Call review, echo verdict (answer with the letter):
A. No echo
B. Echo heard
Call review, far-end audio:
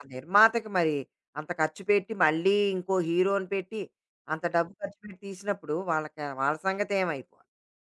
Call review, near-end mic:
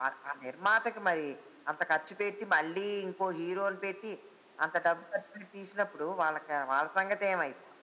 B